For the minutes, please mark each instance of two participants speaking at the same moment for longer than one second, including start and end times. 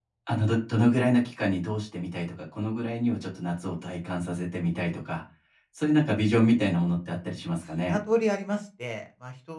none

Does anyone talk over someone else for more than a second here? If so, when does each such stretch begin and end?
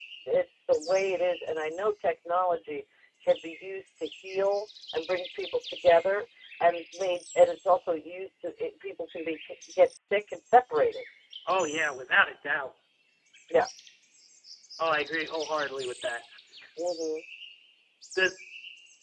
none

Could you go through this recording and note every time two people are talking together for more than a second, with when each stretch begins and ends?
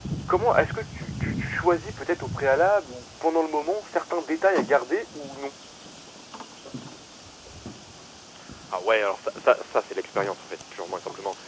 none

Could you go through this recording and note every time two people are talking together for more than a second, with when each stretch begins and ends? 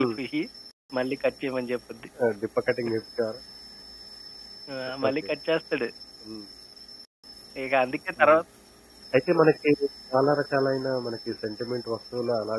none

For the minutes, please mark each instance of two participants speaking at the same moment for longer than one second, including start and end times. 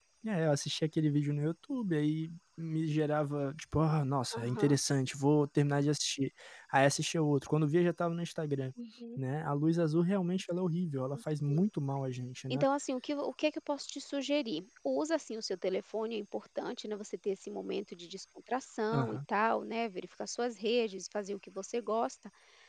none

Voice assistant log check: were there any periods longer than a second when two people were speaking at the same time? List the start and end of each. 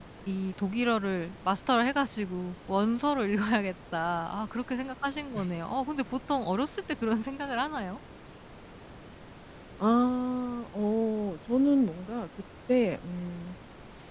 none

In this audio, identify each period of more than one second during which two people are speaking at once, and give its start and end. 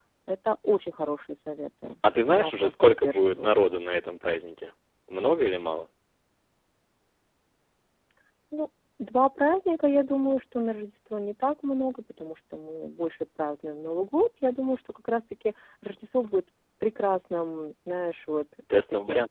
2.3-3.7

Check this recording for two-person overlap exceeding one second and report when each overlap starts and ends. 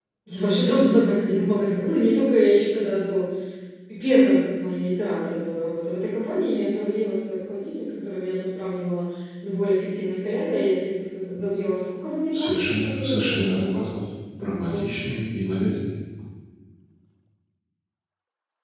12.3-13.8

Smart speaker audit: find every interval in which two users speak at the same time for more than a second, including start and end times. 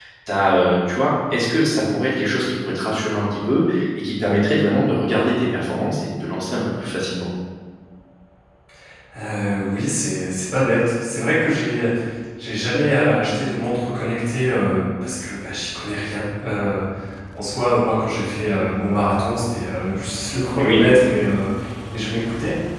none

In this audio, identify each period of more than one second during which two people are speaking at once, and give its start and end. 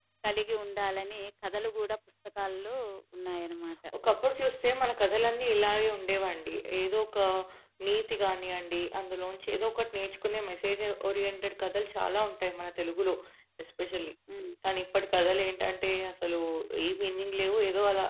none

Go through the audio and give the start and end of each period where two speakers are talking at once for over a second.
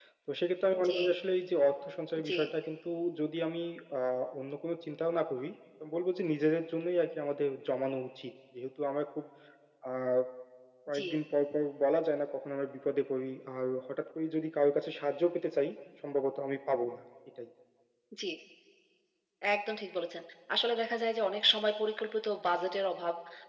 none

